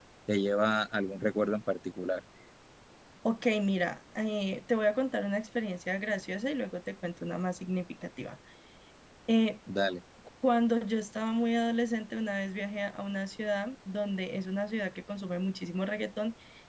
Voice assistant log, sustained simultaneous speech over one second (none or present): none